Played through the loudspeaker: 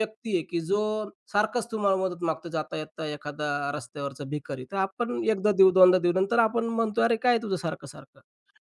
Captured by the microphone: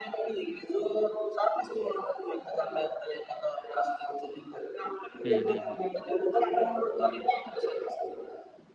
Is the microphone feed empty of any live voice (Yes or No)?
No